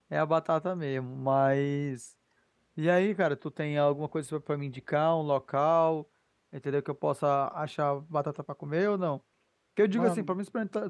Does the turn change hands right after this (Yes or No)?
No